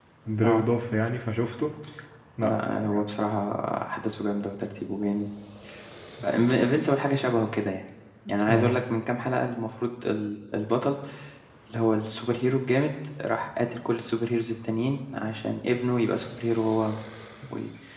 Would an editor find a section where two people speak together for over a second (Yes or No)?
No